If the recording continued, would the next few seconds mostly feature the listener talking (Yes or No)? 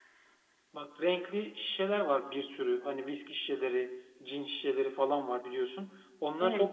No